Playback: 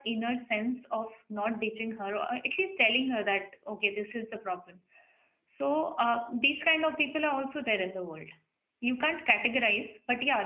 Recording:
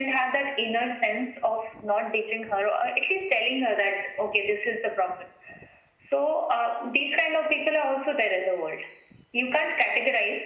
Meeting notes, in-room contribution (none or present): none